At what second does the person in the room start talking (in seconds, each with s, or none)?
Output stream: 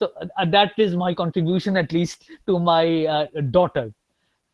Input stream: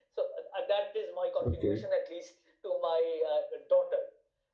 1.4 s